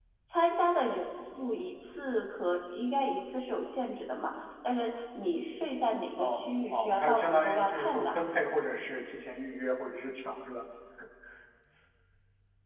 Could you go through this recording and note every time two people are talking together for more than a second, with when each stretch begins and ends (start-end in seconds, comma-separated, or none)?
6.2-8.1